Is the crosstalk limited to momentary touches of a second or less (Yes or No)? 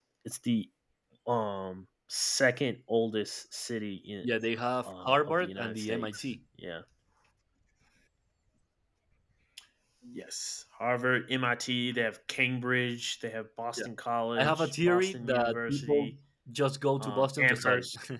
No